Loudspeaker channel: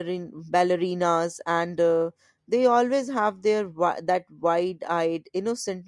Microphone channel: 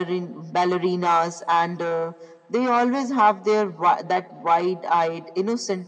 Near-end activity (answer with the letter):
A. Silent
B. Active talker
A